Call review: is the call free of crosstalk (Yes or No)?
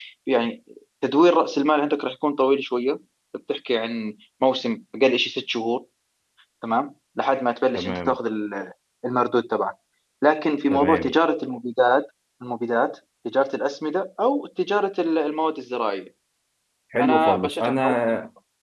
No